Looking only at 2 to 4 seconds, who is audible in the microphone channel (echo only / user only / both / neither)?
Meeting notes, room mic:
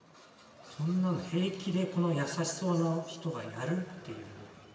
user only